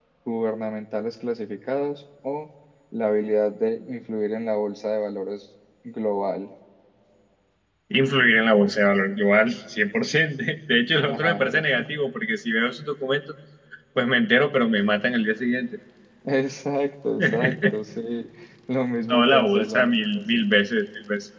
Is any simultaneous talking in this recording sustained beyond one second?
Yes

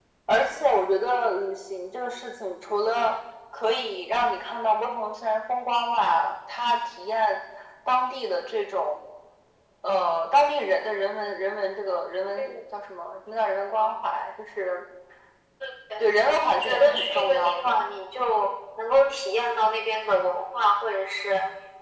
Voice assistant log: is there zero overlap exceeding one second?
No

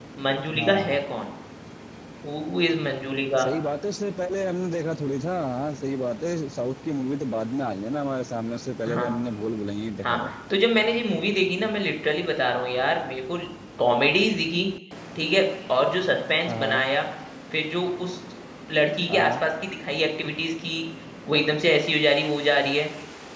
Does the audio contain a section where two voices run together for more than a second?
No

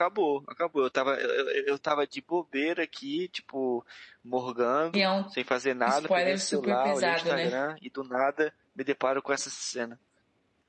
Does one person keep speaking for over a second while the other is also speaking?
Yes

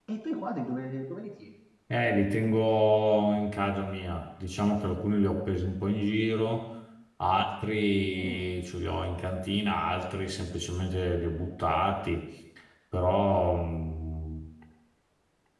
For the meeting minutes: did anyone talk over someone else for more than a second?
No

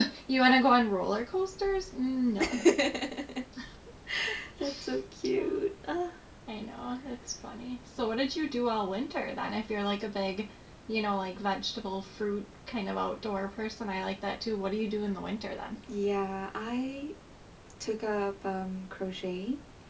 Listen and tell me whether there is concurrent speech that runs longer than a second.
No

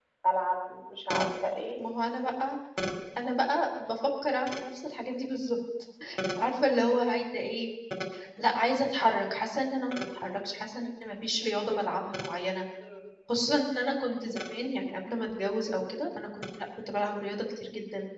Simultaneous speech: No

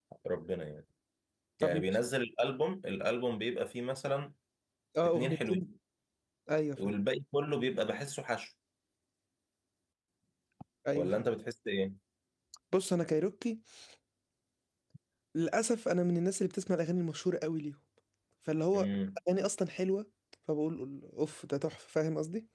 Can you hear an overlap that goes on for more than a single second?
No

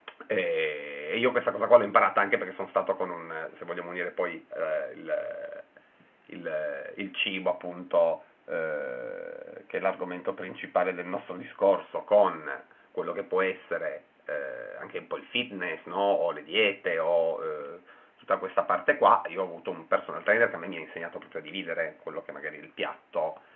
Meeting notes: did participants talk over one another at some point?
No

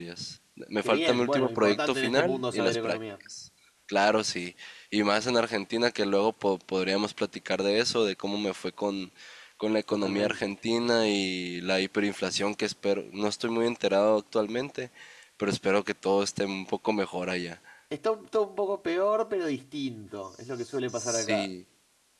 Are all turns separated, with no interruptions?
No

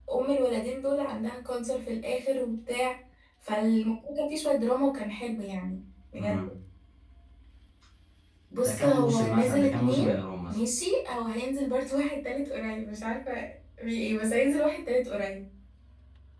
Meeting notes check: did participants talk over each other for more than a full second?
Yes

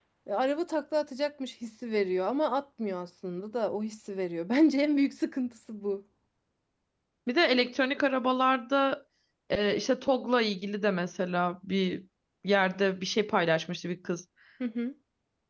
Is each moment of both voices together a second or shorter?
Yes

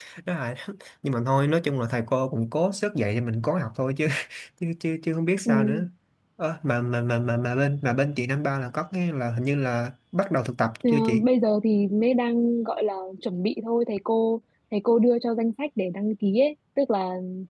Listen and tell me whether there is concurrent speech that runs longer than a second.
No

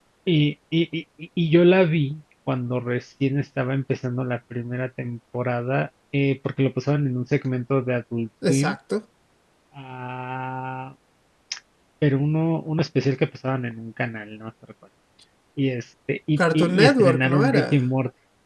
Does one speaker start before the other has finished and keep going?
Yes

